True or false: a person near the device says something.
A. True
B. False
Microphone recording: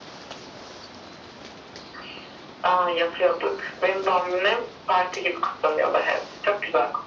B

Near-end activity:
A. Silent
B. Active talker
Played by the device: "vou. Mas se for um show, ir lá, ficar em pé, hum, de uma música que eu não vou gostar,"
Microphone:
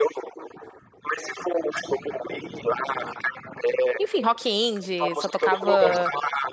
B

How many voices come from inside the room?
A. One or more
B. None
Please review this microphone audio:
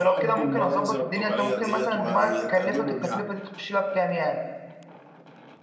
A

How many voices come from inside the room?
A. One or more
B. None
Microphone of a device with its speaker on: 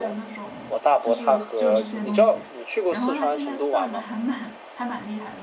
A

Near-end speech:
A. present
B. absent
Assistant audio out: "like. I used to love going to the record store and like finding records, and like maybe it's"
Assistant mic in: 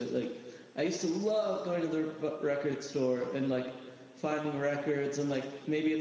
B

